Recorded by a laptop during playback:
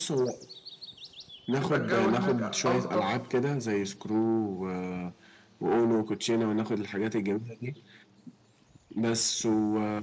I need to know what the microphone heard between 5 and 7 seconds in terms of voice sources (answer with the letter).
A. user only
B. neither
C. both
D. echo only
D